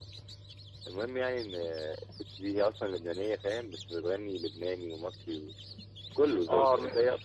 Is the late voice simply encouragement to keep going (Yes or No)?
Yes